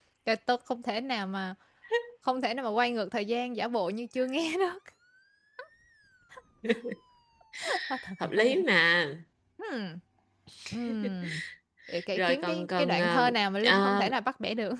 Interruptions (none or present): present